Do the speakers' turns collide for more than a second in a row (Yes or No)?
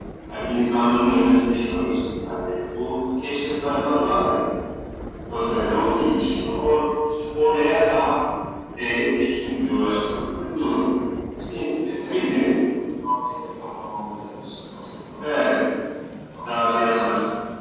No